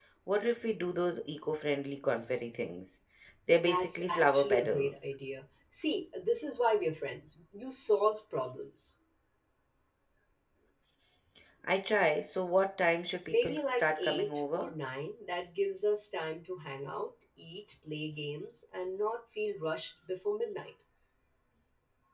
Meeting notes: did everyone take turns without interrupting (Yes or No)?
No